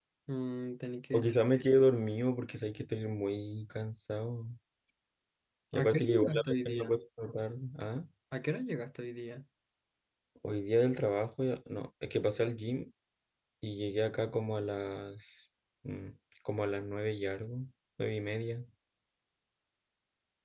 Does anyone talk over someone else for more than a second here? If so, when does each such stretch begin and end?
5.7-6.9

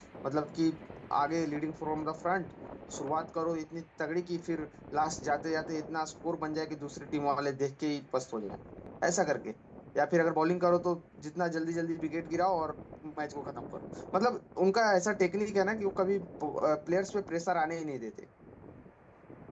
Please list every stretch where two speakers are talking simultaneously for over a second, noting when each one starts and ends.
none

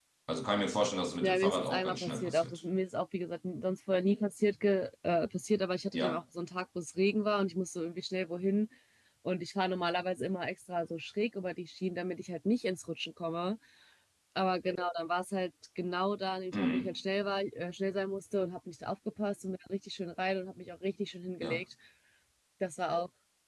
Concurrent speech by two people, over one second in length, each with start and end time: 1.2-2.6

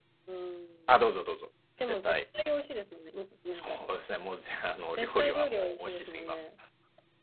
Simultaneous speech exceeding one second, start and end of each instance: 4.9-6.4

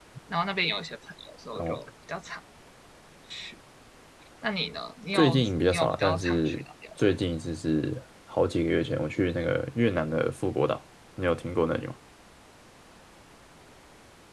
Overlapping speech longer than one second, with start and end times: 5.1-6.6

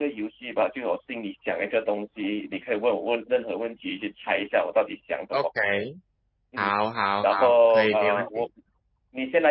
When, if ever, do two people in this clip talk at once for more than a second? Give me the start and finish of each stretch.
7.2-8.4

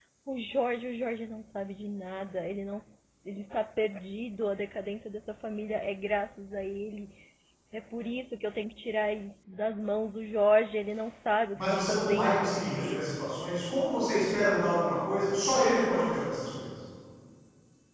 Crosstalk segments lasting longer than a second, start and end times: 11.6-13.2

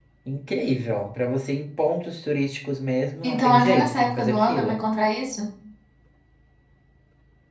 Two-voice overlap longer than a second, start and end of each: 3.2-4.8

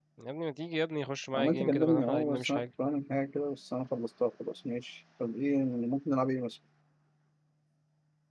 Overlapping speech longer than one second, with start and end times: 1.3-2.6

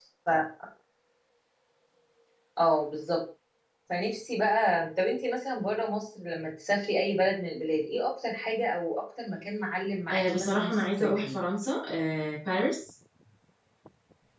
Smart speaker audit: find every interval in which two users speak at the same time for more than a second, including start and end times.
10.1-11.4

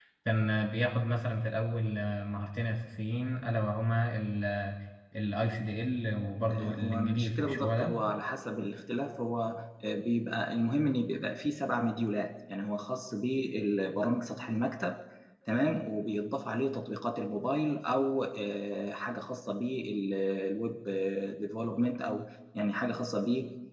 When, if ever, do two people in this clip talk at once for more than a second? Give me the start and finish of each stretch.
6.5-7.9

